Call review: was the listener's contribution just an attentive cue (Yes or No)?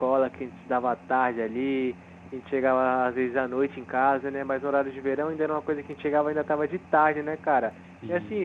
Yes